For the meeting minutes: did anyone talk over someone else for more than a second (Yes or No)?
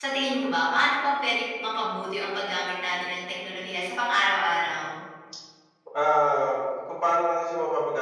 No